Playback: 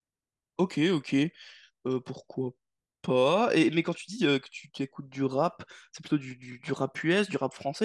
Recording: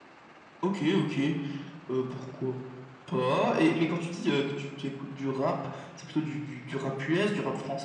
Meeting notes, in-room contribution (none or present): none